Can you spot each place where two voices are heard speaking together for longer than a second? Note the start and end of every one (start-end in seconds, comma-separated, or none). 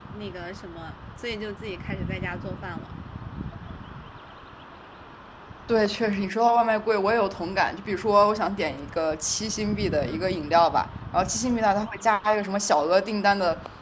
none